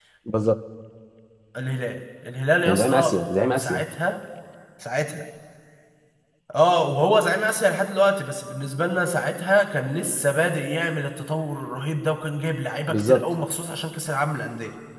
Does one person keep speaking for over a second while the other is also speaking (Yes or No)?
No